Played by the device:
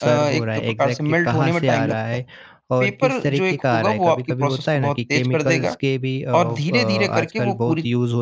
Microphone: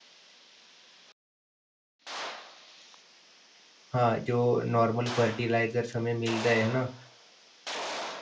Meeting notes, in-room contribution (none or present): present